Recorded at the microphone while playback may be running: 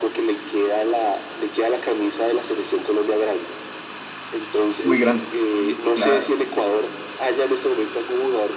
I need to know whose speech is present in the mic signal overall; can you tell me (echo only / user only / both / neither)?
both